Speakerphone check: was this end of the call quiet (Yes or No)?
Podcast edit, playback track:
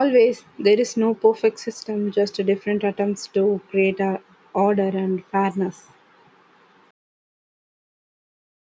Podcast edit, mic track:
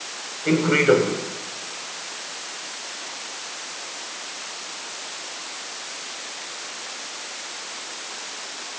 No